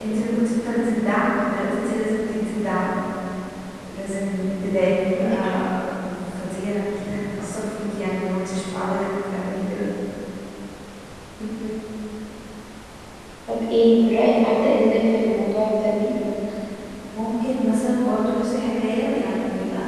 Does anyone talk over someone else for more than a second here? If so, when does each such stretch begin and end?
none

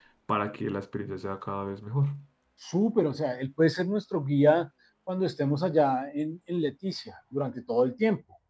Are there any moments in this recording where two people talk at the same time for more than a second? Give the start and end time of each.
none

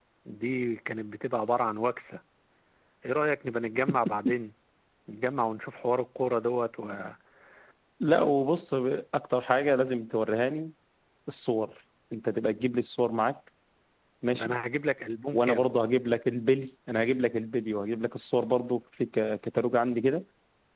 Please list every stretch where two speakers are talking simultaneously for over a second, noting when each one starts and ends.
none

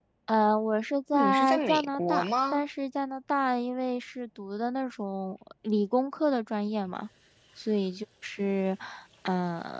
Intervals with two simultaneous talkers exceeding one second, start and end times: 1.1-2.6

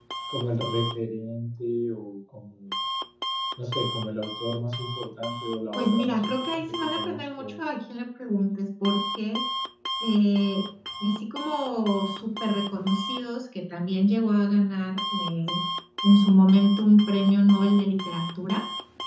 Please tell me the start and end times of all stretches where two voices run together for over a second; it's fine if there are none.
5.7-7.6

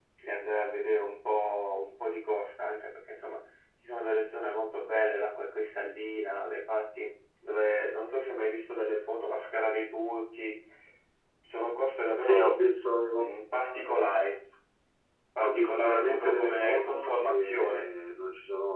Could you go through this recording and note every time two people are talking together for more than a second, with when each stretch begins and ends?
15.4-17.8

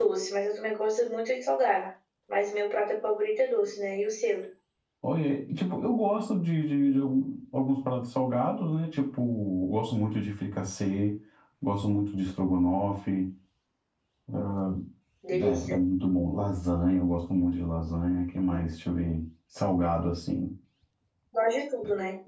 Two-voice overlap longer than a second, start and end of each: none

